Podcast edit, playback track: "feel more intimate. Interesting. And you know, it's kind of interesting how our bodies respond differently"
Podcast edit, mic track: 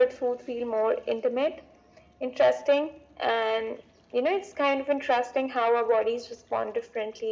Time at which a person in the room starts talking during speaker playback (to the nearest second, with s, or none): none